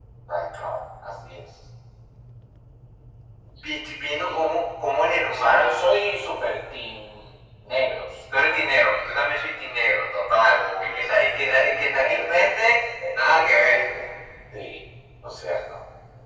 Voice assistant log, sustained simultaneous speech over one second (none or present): present